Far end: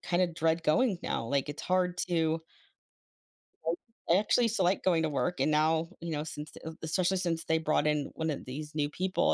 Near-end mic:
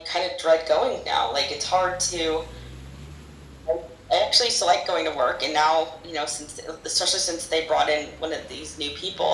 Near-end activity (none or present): none